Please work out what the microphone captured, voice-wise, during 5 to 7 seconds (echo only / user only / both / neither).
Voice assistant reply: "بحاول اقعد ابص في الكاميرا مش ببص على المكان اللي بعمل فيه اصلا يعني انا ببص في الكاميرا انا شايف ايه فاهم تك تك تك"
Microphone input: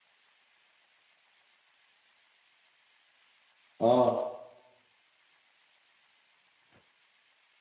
neither